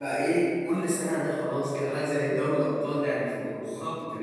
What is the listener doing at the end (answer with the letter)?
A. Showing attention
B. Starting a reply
B